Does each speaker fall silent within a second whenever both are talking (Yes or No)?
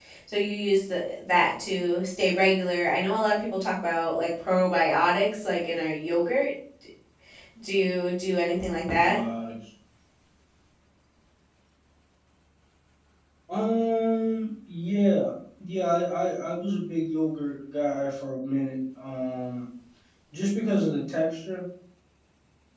Yes